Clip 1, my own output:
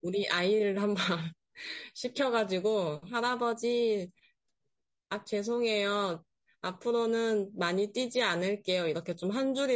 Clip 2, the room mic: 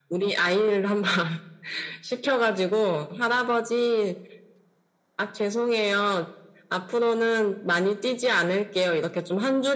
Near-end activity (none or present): none